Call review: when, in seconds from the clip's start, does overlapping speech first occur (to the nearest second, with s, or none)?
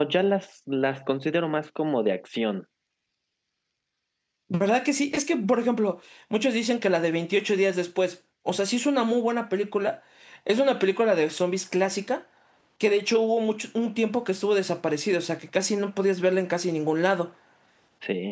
none